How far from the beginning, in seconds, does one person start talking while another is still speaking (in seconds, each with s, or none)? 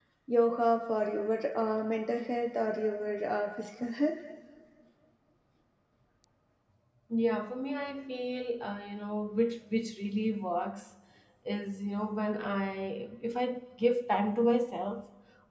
none